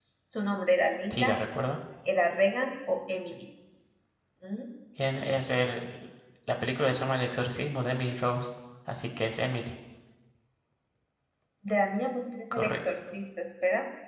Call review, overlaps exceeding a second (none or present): none